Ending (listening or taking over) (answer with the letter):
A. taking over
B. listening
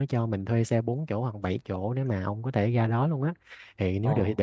B